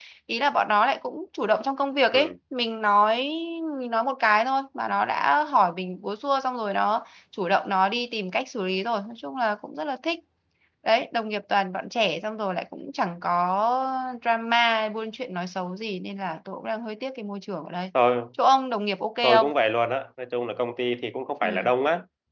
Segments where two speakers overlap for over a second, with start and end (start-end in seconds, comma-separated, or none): none